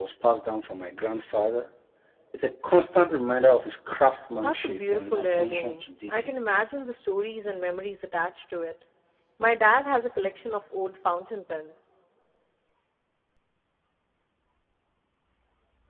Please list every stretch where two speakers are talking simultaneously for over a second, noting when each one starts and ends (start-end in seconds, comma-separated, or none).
4.3-6.3